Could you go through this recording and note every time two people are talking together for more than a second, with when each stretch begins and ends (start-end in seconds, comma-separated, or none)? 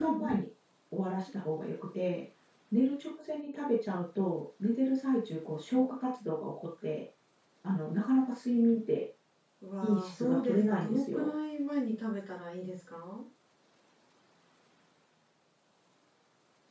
9.8-11.3